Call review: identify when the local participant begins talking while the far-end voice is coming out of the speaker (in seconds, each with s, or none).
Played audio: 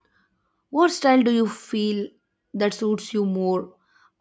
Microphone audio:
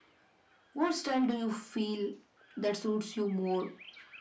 none